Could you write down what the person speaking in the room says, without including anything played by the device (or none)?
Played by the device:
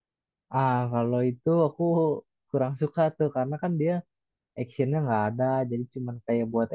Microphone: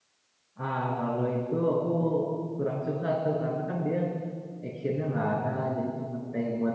none